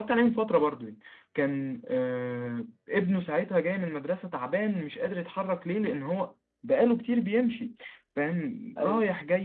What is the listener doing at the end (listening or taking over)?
listening